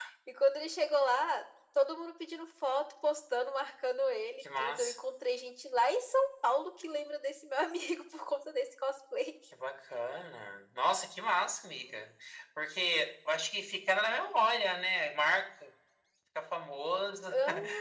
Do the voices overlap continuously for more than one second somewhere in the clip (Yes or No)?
No